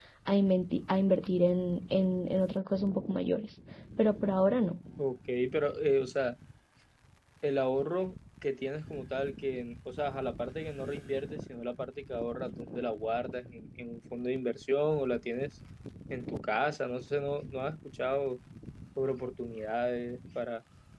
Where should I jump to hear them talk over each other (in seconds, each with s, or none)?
none